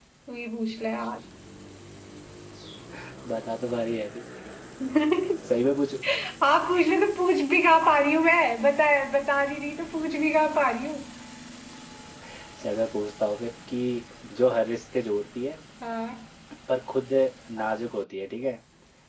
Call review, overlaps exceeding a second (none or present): none